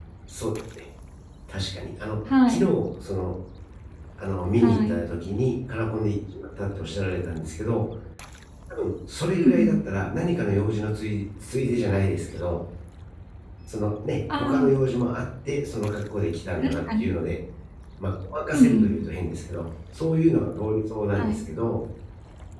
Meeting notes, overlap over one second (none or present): none